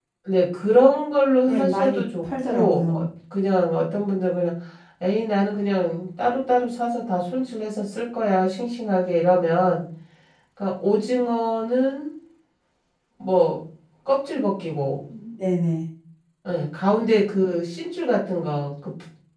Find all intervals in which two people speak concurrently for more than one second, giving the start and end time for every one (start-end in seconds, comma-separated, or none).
1.5-3.1